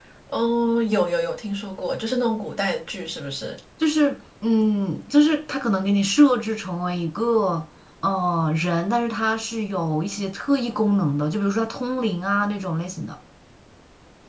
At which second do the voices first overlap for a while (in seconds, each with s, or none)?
none